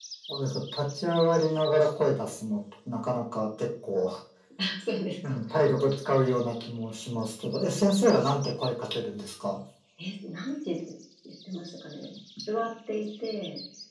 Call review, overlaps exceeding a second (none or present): none